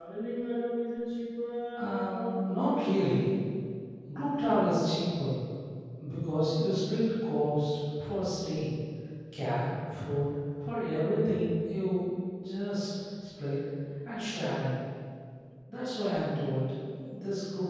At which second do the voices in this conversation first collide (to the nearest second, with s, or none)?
2 s